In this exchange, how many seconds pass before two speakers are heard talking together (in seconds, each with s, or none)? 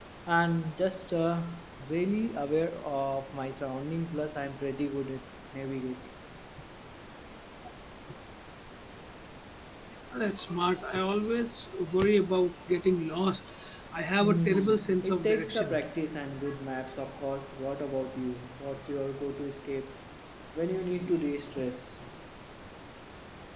14.2 s